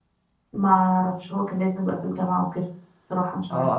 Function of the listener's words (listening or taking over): taking over